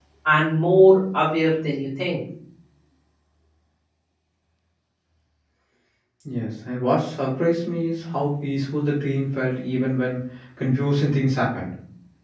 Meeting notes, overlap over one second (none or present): none